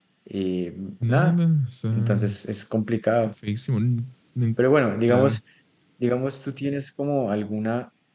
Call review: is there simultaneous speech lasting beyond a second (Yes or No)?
No